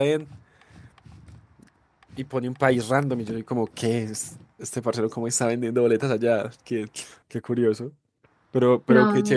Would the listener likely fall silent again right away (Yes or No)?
Yes